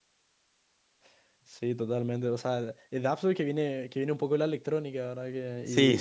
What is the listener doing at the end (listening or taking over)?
taking over